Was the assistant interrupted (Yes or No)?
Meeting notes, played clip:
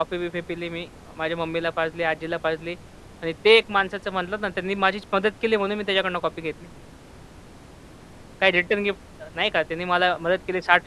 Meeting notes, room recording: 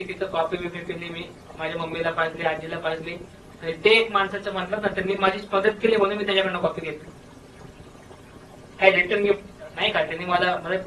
No